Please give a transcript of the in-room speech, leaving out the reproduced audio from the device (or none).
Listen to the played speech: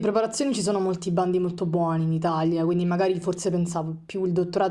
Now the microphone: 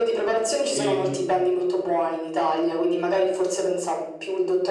E